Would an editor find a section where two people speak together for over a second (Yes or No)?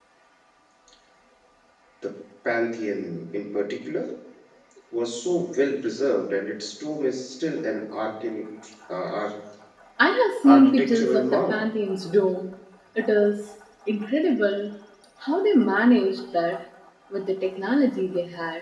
Yes